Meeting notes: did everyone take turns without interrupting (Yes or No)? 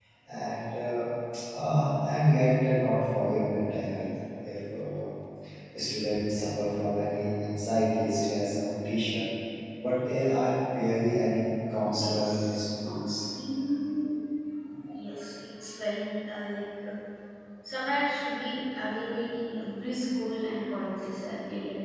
No